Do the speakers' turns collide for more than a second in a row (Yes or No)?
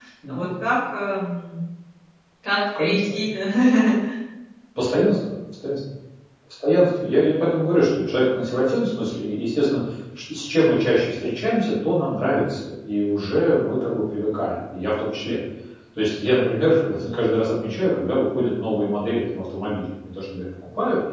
No